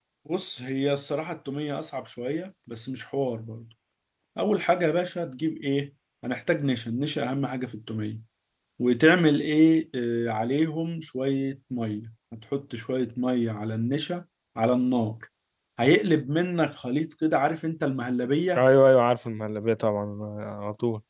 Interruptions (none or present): none